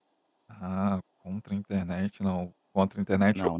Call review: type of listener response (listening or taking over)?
listening